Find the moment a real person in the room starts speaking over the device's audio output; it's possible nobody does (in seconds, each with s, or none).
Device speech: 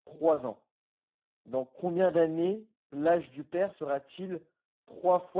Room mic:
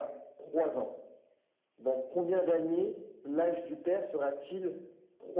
none